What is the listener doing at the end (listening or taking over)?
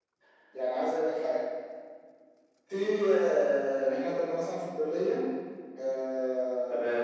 listening